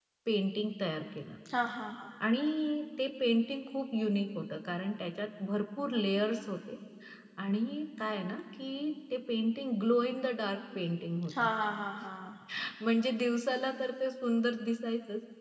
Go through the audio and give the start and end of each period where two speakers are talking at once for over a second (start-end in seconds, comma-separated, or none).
none